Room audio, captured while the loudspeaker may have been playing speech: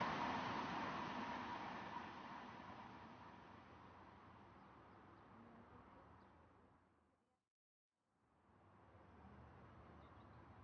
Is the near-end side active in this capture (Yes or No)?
No